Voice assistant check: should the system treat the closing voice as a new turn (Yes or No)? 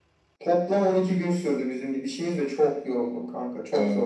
Yes